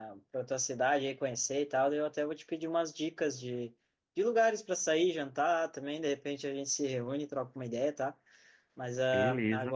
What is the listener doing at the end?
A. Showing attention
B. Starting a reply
A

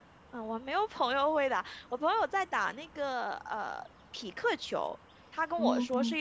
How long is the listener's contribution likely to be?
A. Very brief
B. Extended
A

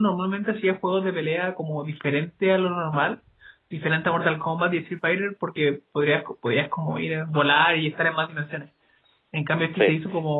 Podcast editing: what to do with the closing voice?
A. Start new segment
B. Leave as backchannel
B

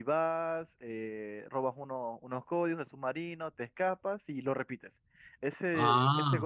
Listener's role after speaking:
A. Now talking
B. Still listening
B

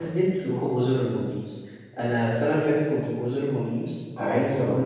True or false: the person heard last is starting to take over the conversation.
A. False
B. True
A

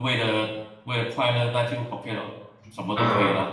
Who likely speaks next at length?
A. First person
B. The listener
B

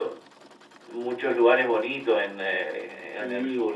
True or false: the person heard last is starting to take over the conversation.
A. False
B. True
B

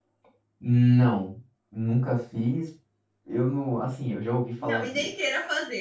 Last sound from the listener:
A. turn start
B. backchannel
A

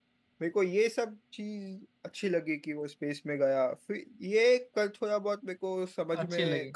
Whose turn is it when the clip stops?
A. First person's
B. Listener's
B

